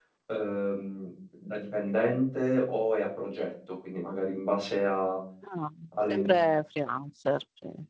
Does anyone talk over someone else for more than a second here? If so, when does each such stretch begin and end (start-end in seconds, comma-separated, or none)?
none